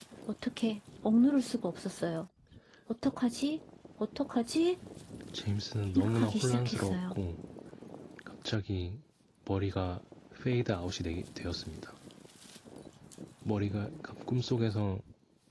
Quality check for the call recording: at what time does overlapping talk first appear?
6.0 s

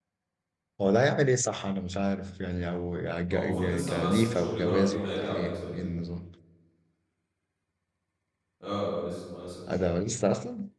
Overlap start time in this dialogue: 3.3 s

